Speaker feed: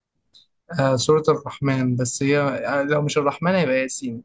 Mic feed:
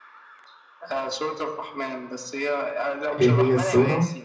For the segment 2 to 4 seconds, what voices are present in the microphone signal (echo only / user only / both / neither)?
both